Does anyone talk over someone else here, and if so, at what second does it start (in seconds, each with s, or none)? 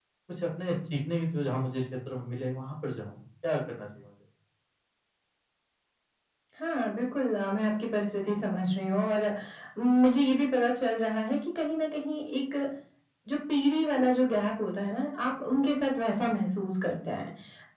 none